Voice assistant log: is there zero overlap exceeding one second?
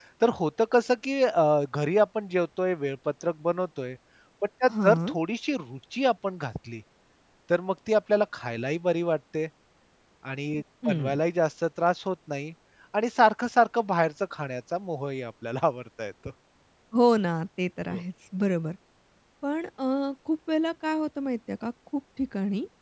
Yes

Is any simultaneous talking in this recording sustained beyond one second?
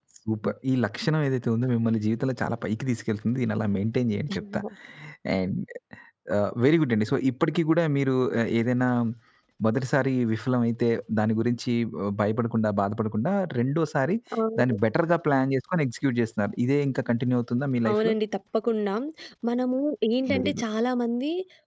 No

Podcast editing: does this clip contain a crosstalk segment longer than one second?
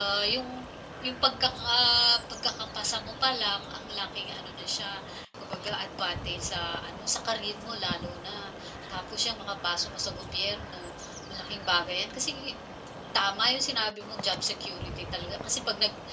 No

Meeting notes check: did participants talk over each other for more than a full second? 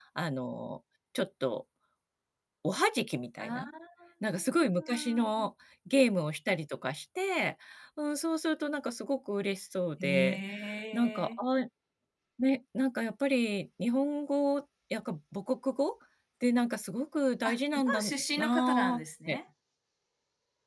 Yes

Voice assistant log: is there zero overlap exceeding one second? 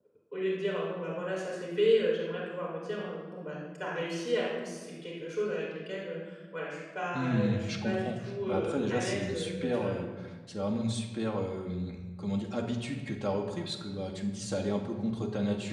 No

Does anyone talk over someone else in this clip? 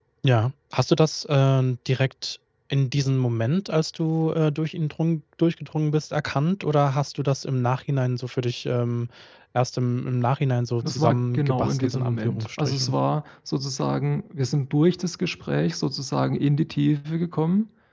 Yes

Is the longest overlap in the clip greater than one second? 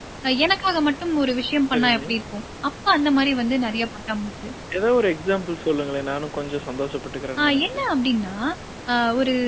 No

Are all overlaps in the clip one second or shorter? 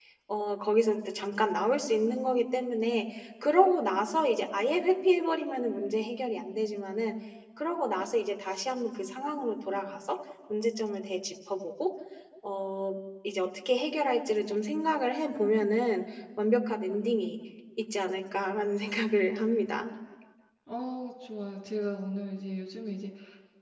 Yes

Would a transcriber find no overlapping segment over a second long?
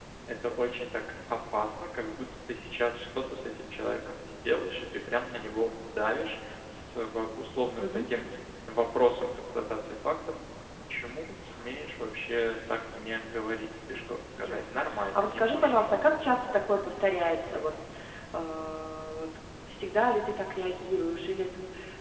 No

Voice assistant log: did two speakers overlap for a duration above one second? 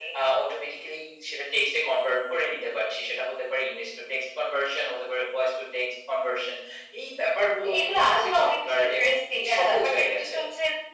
Yes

